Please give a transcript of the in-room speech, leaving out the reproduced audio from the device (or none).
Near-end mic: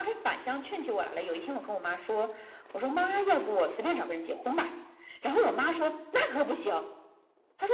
none